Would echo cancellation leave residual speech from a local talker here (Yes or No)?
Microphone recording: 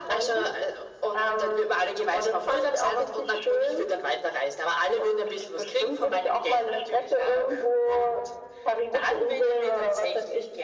No